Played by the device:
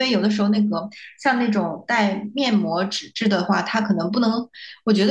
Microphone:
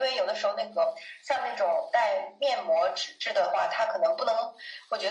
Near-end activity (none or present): none